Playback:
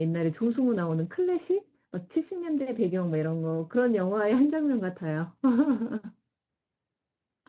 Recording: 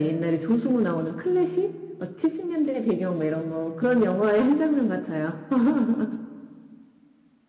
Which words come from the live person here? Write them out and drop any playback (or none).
none